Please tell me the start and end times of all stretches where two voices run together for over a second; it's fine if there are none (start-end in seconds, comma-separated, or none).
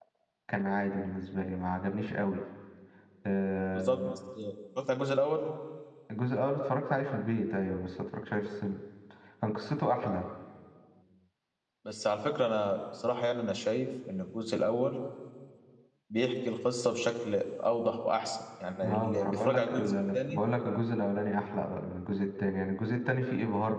18.8-20.4